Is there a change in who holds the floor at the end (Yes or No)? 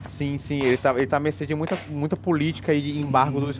Yes